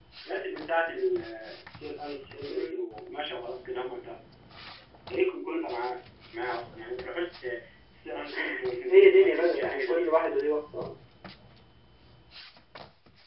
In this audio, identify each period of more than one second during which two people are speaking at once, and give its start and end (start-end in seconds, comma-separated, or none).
8.9-10.1